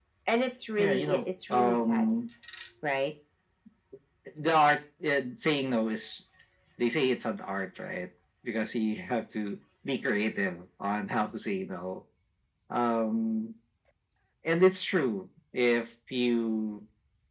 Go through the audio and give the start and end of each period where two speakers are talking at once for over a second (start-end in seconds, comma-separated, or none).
0.8-2.1